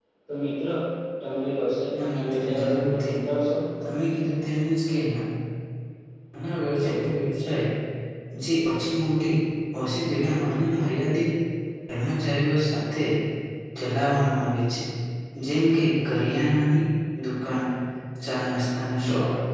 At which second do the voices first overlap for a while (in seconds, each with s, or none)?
2.0 s